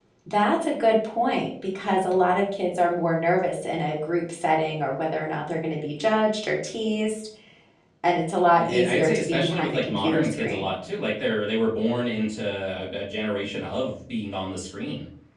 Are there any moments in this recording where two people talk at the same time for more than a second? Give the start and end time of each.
8.5-10.7

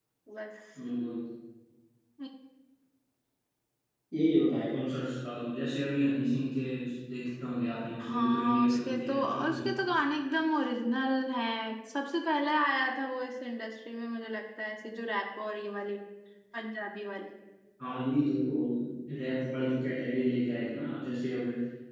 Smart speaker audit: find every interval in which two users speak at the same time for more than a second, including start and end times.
8.0-9.7

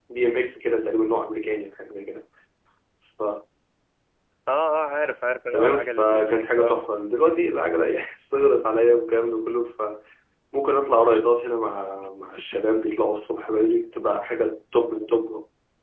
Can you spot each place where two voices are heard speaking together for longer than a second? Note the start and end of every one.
5.5-6.8

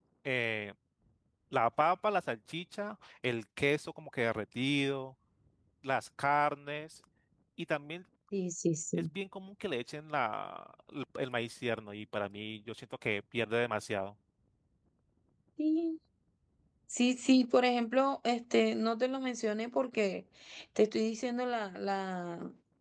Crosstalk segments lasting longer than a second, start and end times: none

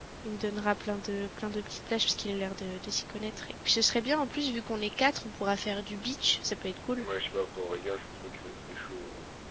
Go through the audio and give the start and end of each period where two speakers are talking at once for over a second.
none

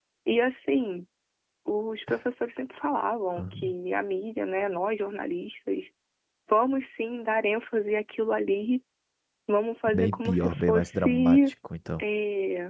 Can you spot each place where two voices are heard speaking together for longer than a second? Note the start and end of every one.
9.9-11.4

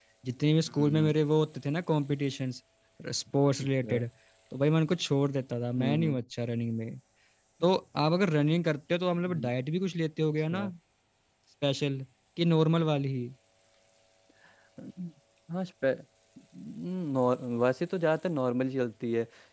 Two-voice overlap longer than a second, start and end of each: none

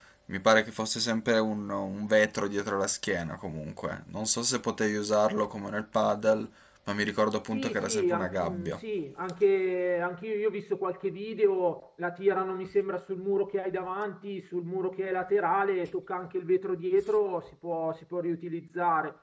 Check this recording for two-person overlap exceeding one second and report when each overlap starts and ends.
7.5-8.8

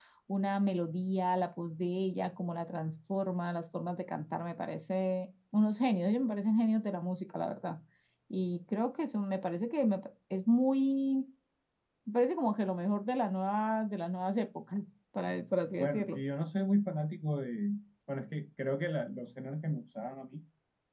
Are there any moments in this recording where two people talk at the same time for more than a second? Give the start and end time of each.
none

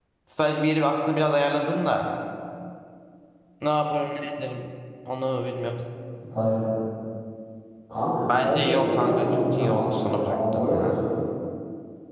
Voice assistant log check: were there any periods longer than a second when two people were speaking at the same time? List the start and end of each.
8.3-11.0

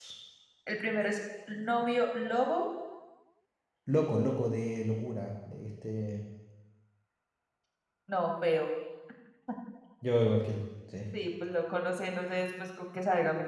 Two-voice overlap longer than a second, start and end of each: none

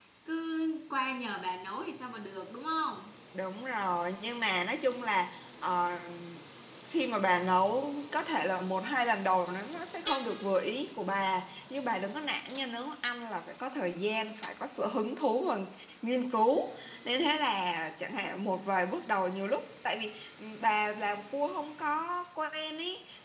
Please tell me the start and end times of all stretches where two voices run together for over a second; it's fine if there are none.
none

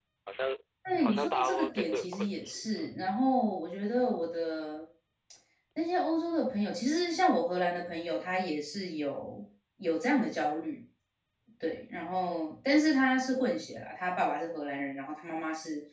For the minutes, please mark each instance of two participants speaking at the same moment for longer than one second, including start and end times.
1.0-3.1

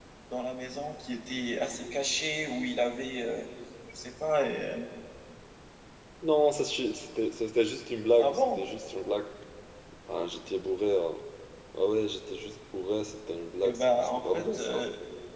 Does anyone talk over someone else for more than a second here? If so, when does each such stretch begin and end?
13.6-14.8

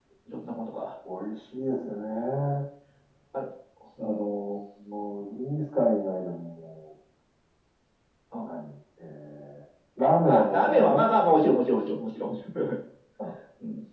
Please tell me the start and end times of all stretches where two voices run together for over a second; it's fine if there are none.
10.3-11.5

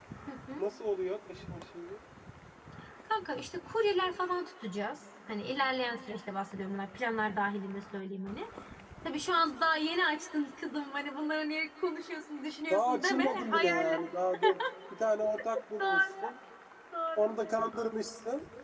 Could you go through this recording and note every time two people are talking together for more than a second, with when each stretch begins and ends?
12.7-14.0

